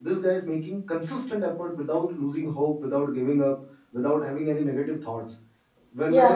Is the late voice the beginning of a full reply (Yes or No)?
No